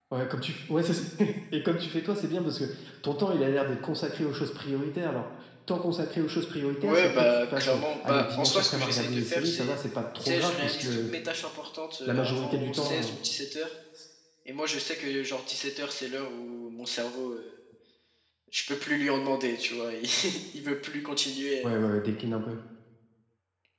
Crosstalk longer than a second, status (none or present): present